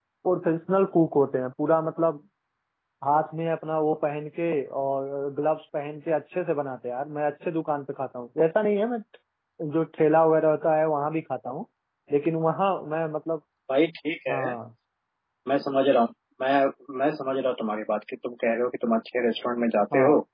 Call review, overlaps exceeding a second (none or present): none